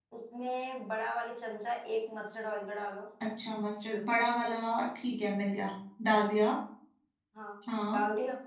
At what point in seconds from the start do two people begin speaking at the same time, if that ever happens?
none

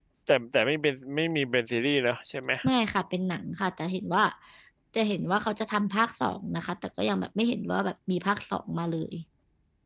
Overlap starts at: none

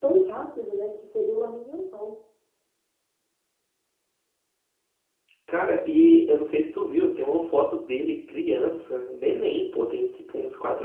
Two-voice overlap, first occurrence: none

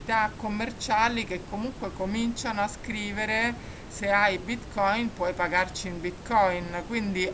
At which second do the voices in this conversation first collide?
none

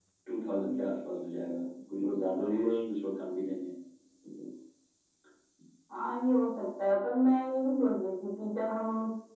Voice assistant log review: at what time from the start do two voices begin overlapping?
none

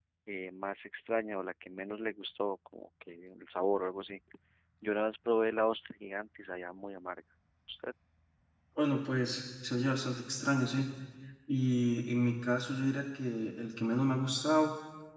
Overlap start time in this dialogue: none

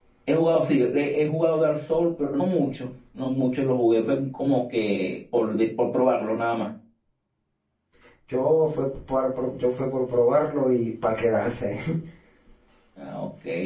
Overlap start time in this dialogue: none

